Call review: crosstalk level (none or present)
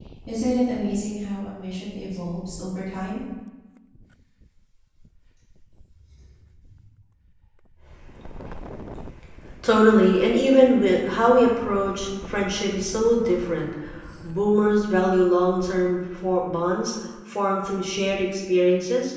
none